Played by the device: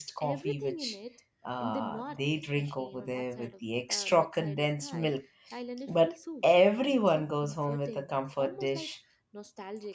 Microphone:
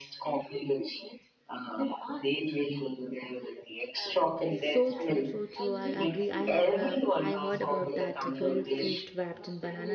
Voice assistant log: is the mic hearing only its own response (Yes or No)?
No